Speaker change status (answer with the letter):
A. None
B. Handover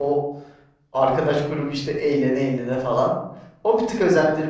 A